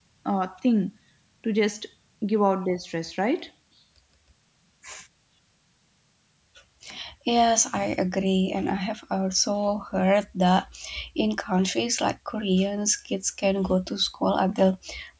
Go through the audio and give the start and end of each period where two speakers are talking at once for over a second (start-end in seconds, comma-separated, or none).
none